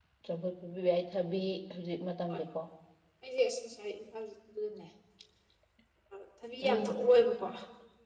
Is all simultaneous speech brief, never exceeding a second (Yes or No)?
Yes